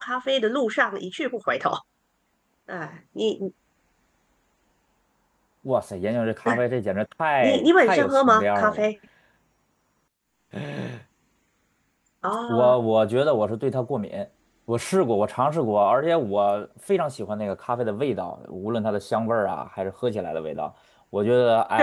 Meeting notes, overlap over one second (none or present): present